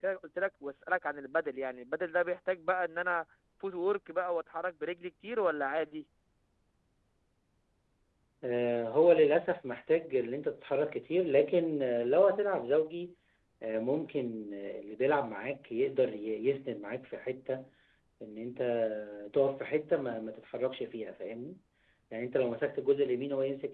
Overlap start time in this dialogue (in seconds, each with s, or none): none